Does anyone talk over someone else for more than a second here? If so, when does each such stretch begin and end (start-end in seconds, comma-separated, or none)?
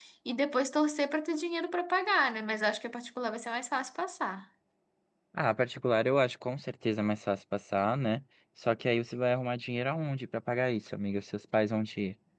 none